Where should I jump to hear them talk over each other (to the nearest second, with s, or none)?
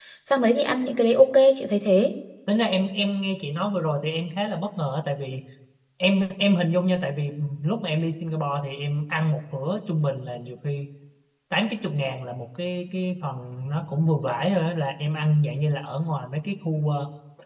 none